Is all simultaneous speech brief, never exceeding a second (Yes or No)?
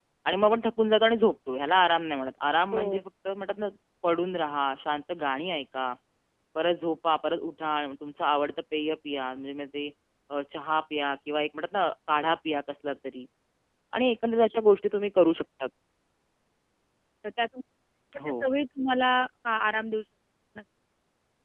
Yes